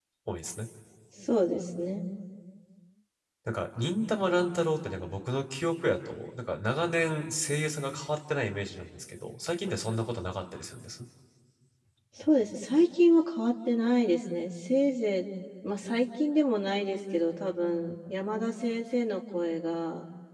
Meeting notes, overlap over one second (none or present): none